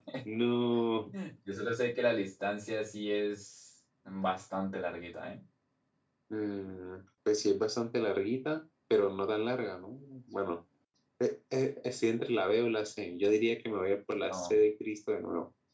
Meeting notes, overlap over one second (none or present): none